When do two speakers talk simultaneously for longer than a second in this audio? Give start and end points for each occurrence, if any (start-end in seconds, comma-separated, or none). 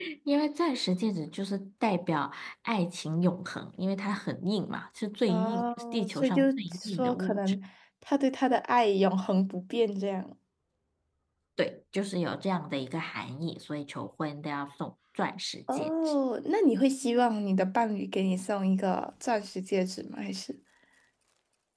5.3-7.4